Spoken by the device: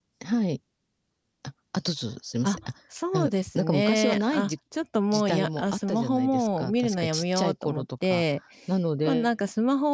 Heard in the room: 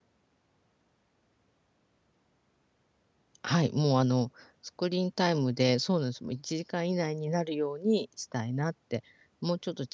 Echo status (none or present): none